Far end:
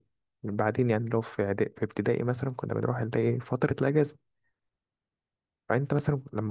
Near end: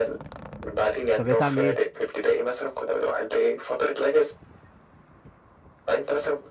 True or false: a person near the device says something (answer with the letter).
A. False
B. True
B